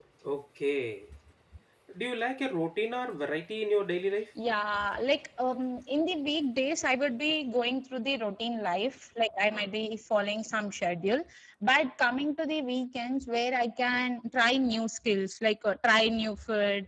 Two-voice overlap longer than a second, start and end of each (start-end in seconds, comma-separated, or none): none